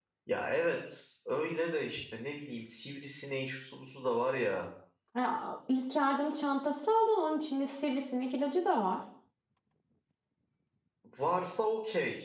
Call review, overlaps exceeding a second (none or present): none